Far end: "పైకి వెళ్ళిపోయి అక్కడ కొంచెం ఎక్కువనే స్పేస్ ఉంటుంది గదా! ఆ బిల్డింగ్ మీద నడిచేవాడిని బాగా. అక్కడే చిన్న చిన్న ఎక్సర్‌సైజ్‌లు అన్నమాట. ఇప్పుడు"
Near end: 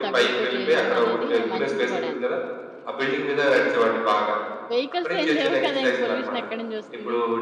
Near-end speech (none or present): present